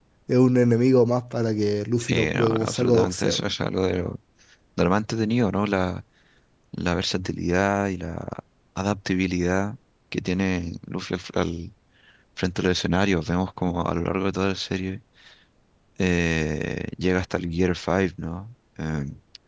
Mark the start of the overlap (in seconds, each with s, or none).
2.0 s